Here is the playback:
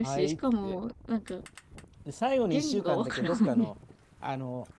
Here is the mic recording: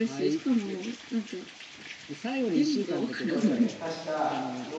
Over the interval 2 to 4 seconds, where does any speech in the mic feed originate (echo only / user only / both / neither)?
both